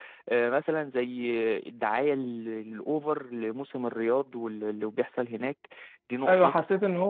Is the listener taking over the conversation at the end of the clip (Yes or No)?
Yes